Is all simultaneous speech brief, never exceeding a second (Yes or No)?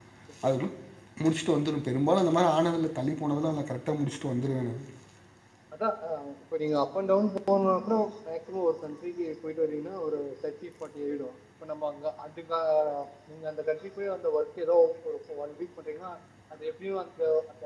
Yes